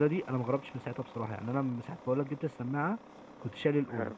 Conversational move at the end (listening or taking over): listening